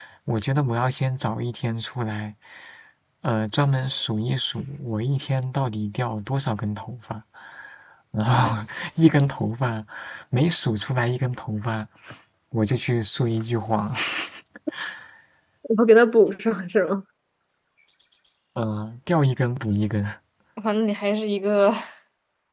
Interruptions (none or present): none